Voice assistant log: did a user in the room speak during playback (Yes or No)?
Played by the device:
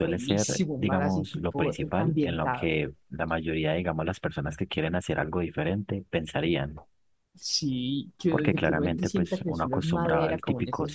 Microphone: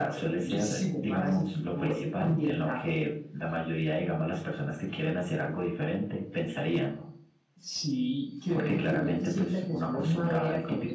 No